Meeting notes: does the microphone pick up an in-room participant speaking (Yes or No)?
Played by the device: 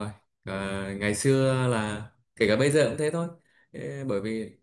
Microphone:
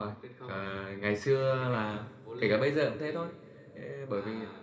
Yes